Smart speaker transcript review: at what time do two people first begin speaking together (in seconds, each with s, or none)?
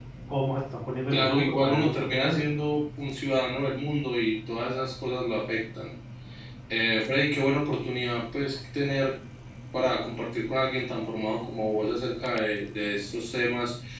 1.1 s